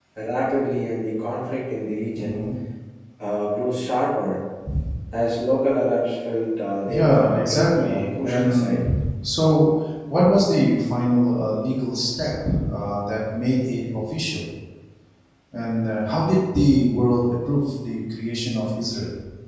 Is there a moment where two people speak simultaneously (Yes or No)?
Yes